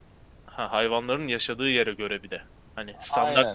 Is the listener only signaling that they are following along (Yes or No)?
No